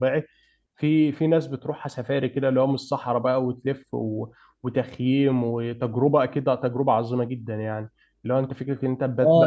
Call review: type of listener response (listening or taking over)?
taking over